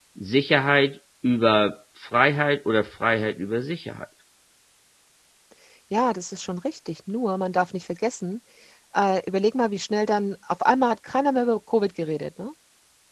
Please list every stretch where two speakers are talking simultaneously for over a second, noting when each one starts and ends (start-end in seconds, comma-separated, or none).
none